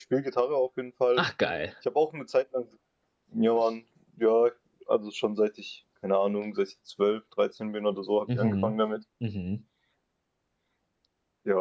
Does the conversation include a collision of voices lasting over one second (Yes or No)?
No